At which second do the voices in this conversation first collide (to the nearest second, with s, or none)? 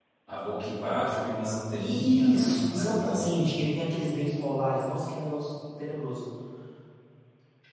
2 s